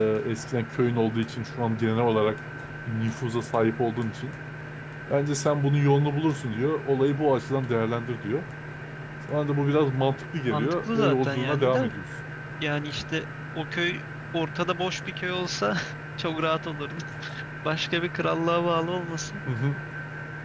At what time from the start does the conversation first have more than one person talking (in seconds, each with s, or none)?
10.5 s